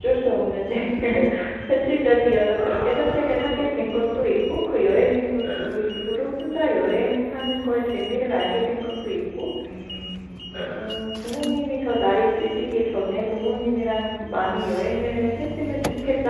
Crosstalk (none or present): present